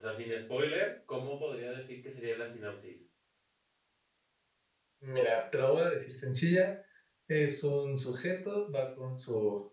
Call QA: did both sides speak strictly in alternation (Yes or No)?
Yes